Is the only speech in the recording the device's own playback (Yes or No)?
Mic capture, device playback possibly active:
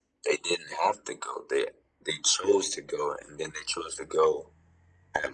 Yes